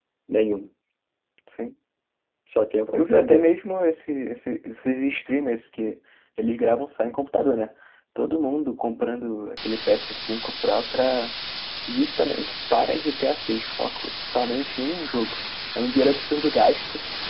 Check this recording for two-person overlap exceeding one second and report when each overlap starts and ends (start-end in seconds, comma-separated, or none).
none